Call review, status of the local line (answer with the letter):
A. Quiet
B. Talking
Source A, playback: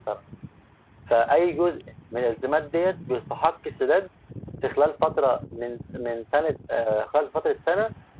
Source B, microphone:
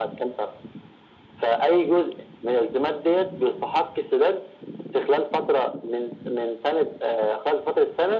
A